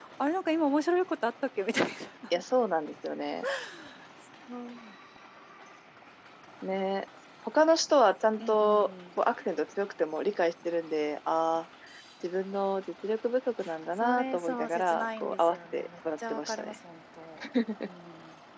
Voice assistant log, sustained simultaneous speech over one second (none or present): present